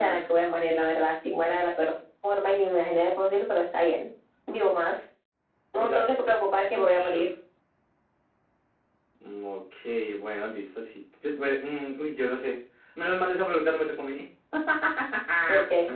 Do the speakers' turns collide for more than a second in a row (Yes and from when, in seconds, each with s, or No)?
No